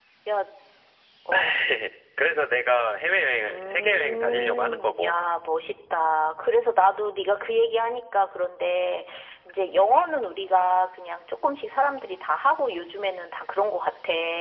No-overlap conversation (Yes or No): No